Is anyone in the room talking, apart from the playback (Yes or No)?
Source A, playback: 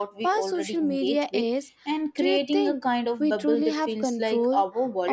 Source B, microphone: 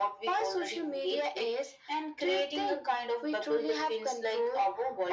No